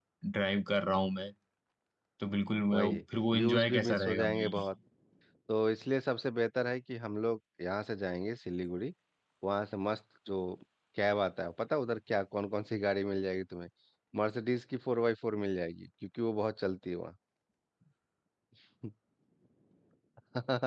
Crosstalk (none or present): present